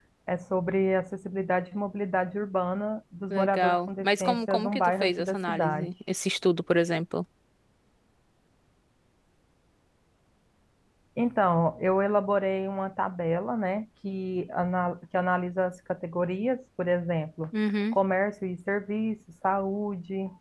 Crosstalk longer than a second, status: present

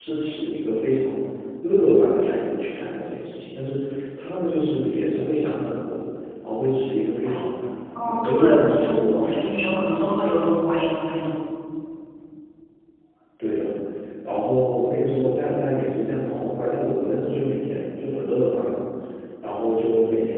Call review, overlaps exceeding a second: present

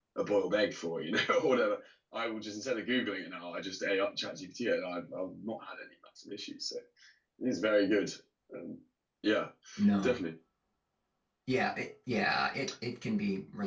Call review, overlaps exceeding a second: none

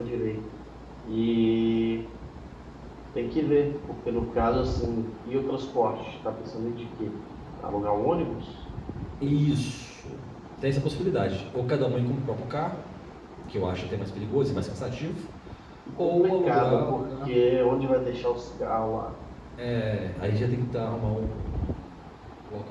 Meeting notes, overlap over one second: present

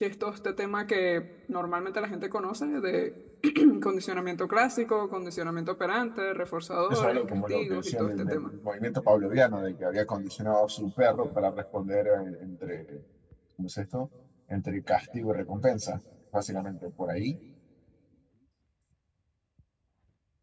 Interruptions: present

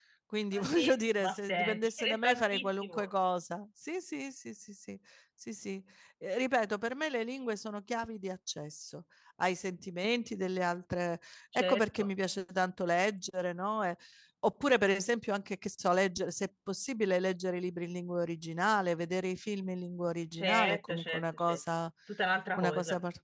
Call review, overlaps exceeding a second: present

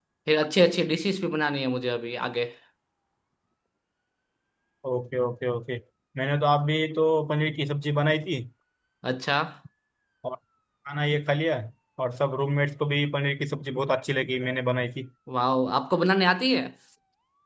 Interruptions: none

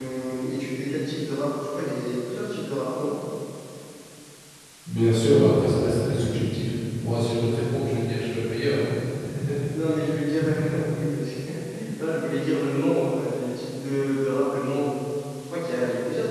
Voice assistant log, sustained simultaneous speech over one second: none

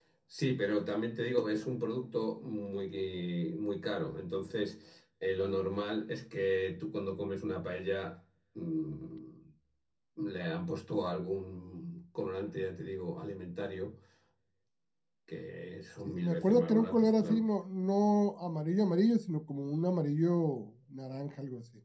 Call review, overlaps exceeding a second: present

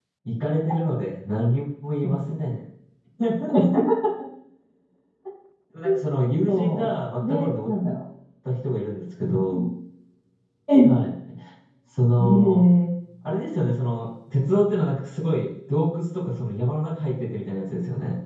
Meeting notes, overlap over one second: present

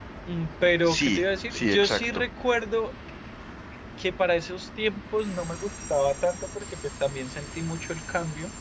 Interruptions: present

